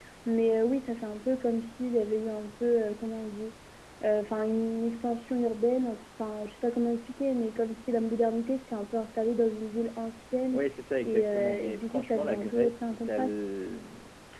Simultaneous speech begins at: 11.1 s

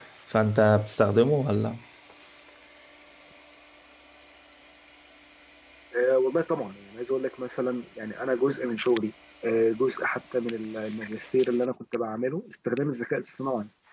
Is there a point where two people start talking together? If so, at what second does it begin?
none

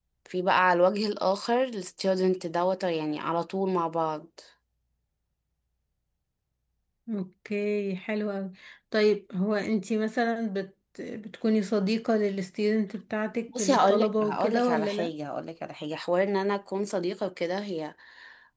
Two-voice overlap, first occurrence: 13.5 s

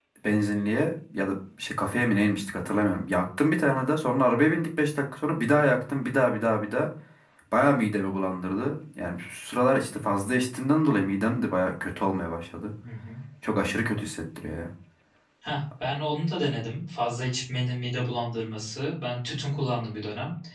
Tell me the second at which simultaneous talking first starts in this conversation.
none

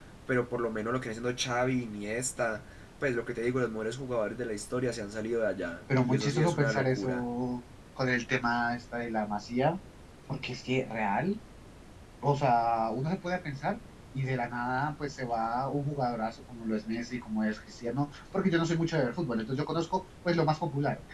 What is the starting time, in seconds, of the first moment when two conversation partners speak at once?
5.9 s

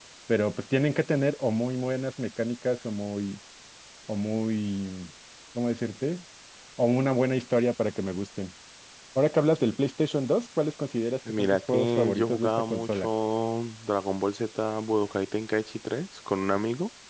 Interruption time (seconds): 11.2 s

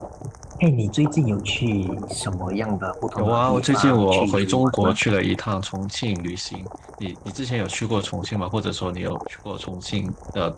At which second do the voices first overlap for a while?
3.2 s

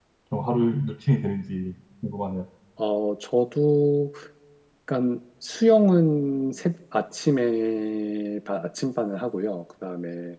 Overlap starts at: none

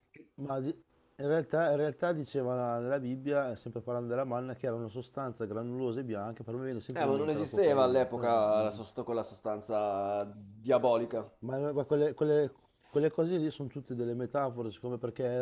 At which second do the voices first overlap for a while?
6.9 s

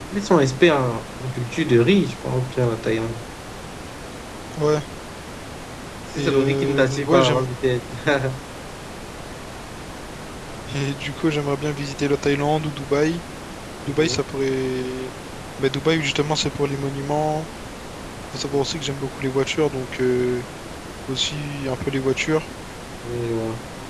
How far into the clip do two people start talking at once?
6.2 s

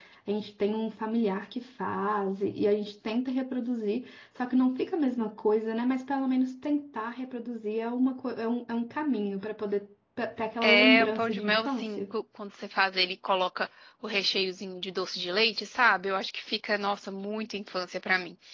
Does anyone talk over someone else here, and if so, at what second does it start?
10.6 s

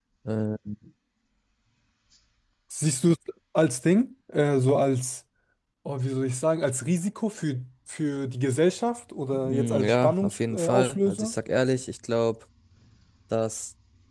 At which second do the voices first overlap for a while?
9.3 s

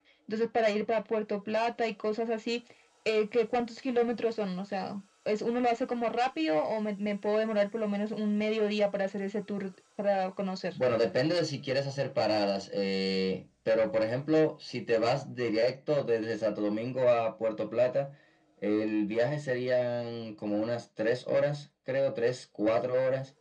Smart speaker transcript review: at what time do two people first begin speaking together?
none

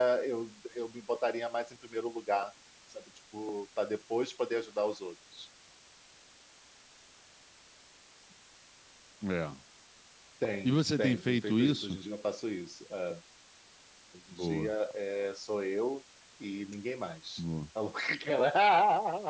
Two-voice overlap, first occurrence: 10.7 s

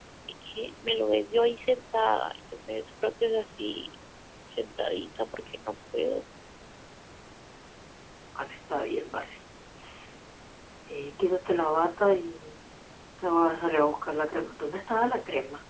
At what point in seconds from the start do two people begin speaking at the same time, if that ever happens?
none

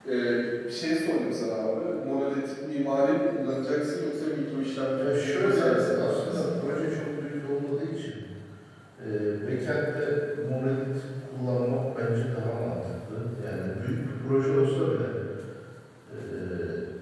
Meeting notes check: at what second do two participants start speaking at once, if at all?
5.0 s

